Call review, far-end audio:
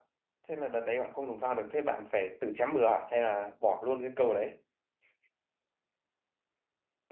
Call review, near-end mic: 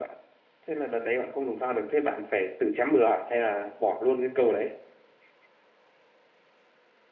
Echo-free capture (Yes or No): No